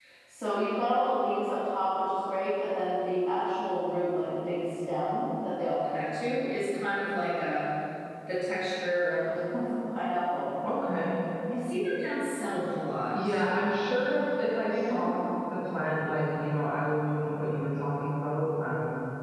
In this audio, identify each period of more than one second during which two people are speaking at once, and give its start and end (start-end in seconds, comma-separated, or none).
none